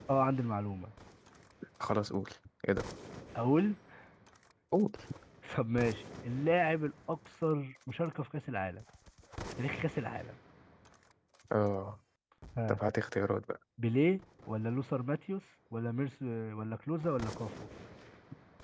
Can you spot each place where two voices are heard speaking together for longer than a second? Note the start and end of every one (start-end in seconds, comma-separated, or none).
none